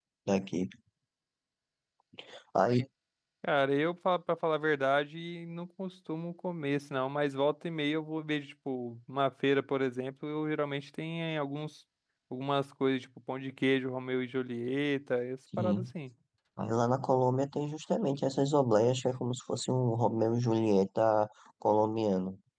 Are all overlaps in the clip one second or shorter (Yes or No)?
Yes